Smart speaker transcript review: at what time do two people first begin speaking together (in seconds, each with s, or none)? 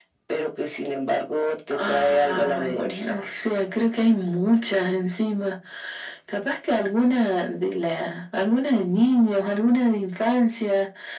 1.7 s